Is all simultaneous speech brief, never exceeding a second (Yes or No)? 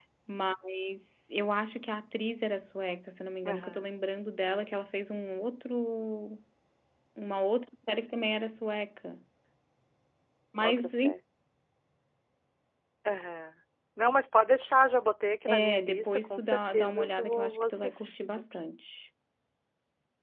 No